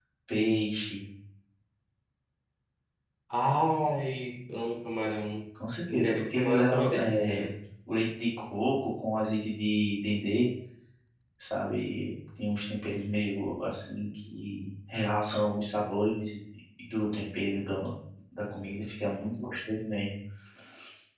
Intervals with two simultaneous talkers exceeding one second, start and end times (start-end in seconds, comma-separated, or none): 5.9-7.5